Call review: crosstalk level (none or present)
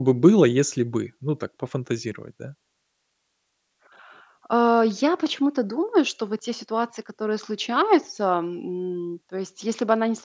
none